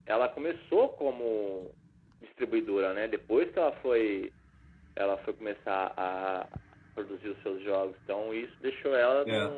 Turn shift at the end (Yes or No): No